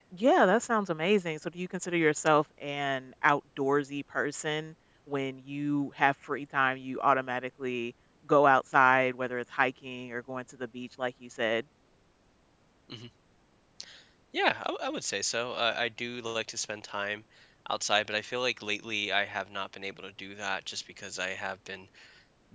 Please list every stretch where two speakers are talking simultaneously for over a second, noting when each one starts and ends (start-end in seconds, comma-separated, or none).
none